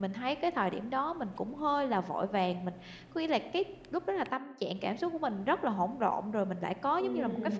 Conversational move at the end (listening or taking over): taking over